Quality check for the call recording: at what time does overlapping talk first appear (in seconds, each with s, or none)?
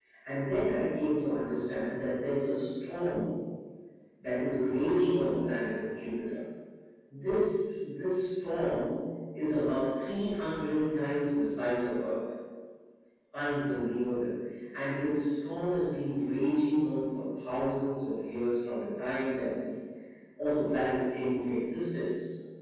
none